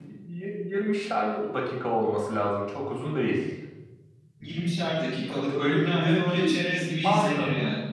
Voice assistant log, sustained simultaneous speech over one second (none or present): present